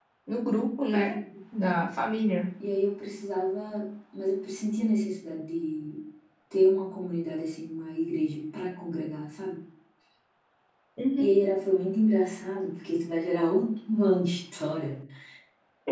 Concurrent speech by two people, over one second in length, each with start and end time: none

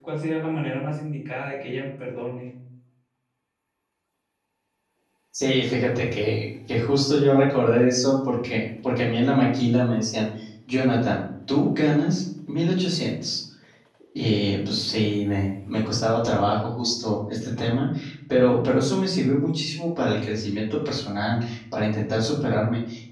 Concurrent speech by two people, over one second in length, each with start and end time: none

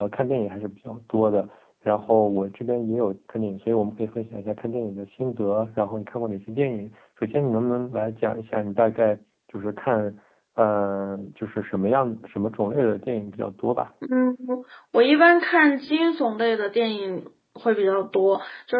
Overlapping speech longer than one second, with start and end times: none

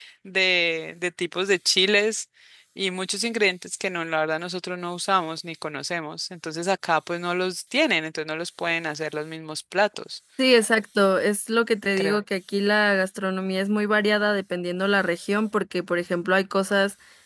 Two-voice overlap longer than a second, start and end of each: none

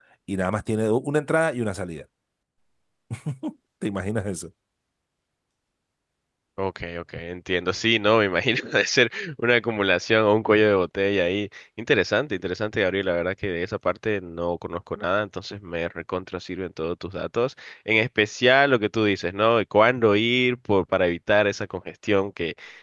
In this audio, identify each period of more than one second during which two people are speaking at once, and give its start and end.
none

